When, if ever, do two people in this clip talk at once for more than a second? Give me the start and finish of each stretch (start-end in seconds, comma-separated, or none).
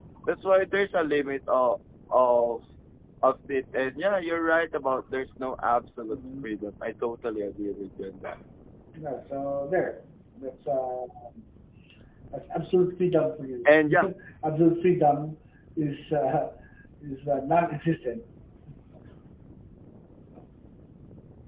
none